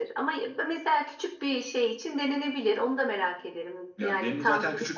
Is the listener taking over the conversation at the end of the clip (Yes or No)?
Yes